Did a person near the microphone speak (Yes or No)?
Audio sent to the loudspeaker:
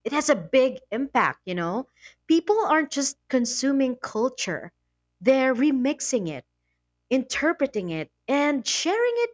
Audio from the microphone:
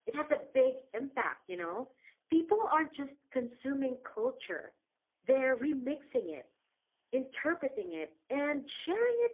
No